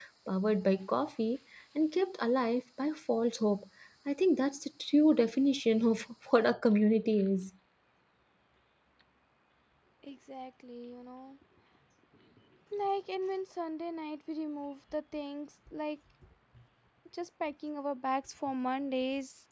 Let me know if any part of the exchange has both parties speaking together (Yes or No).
No